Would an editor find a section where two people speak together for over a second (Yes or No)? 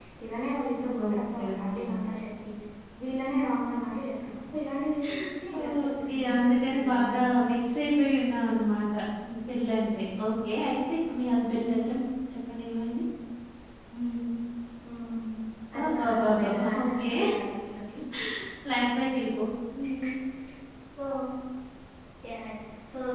Yes